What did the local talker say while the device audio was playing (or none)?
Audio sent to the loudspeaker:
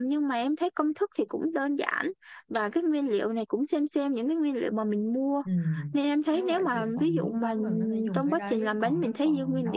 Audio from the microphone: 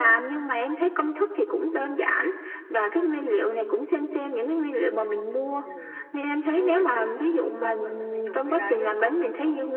none